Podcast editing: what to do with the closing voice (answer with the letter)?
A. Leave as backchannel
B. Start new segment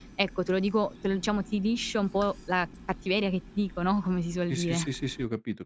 B